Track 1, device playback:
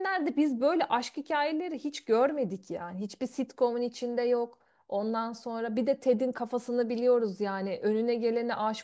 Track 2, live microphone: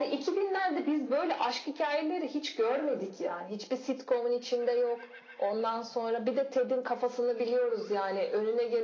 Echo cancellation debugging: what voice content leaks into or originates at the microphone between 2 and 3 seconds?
echo only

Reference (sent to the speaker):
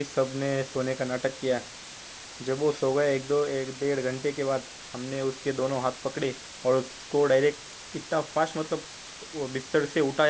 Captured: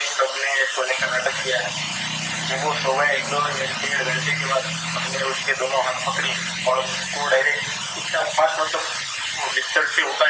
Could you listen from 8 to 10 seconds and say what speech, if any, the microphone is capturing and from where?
echo only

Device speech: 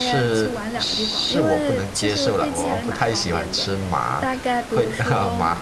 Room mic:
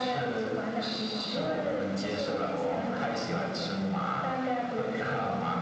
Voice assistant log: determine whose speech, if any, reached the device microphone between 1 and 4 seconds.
echo only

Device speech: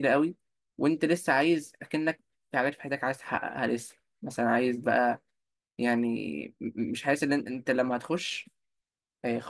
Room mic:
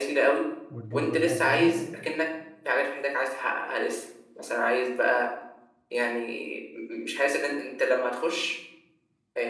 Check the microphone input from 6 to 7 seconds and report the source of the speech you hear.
echo only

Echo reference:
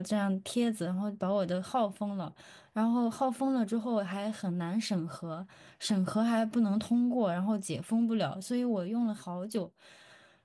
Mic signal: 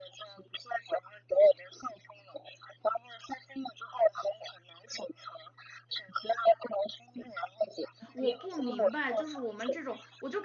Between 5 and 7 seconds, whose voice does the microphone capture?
echo only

